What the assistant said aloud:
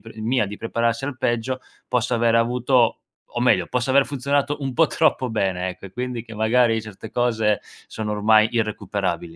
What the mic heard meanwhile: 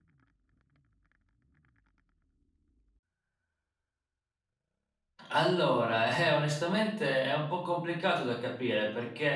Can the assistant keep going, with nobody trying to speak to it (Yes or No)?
No